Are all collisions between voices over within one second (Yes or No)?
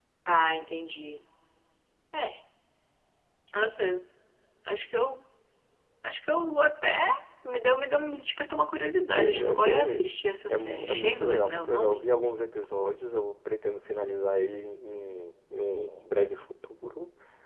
No